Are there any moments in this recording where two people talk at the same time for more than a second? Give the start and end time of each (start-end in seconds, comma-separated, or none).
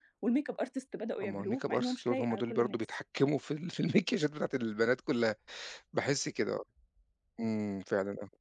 1.2-2.8